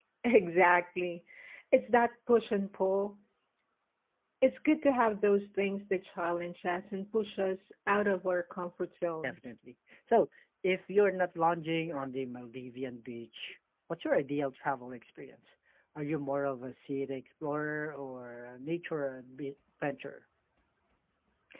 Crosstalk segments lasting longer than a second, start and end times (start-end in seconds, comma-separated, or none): none